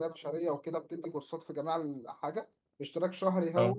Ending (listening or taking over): listening